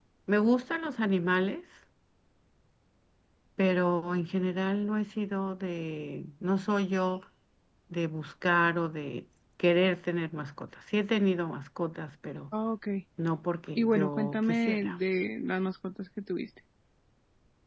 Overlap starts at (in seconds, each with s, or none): 13.8 s